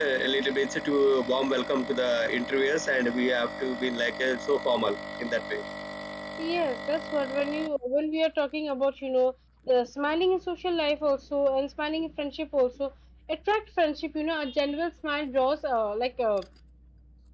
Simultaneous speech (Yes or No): No